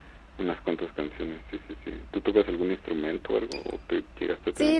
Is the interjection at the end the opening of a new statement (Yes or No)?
Yes